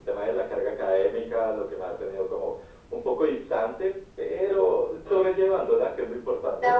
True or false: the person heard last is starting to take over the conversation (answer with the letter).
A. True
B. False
A